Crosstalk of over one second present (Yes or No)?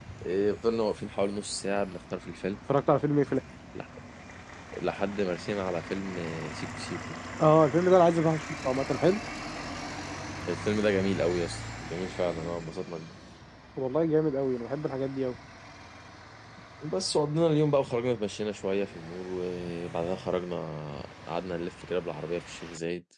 No